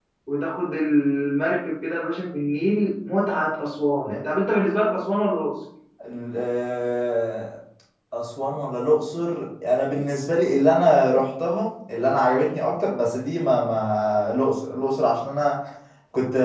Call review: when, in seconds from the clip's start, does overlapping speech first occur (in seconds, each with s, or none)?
none